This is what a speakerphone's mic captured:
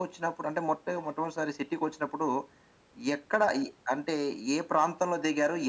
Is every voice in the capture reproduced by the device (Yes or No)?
Yes